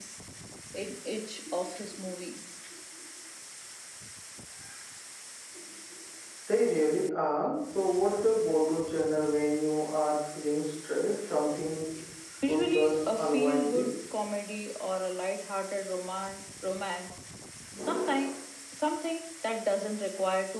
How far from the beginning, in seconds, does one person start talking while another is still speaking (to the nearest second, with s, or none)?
12 s